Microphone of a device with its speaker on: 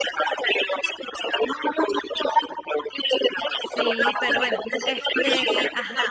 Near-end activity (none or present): present